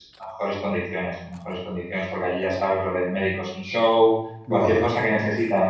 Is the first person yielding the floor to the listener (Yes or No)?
No